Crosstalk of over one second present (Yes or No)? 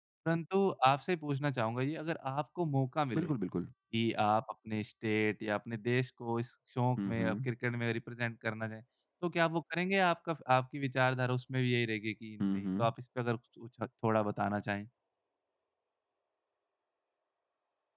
No